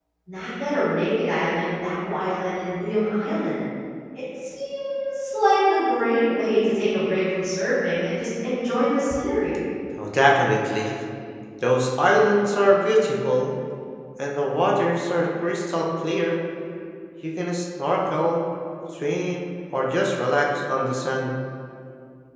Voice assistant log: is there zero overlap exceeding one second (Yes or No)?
Yes